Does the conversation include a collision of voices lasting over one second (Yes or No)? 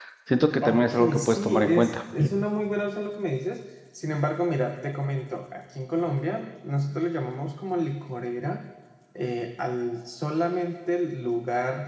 Yes